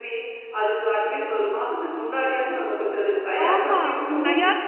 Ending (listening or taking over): taking over